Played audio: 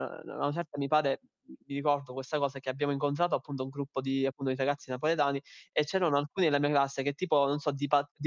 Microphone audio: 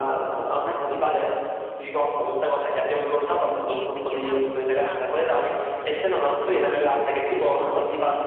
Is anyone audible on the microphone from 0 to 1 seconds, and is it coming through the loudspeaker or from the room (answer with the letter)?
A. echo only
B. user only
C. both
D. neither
A